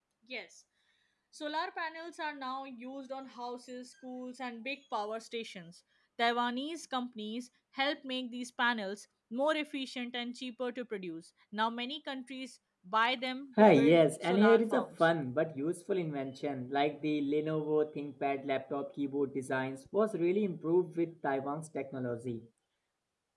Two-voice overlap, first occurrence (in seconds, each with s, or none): 13.6 s